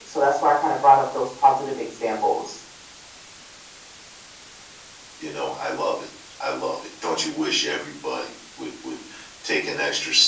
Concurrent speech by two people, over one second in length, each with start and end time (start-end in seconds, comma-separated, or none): none